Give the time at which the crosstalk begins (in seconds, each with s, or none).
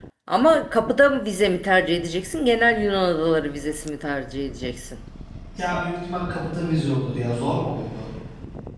none